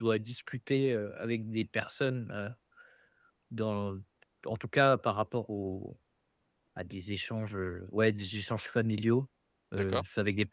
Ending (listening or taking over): listening